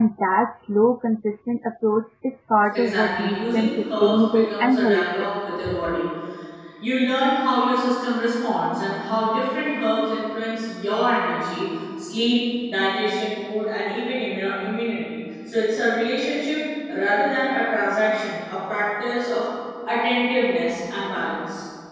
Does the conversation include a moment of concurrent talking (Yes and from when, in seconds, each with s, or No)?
Yes, from 2.7 s